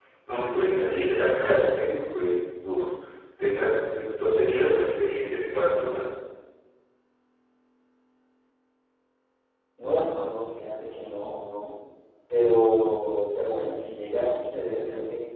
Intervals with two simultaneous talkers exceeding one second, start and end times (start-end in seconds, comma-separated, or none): none